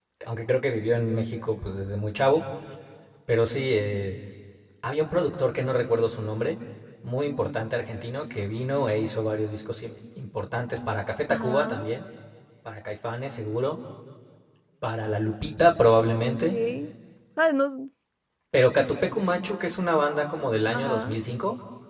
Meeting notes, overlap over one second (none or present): none